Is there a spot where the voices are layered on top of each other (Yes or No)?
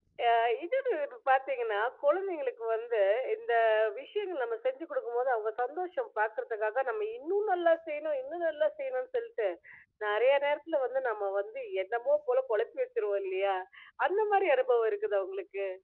No